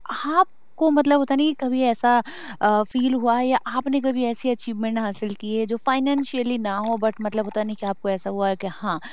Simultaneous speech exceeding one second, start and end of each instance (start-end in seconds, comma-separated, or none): none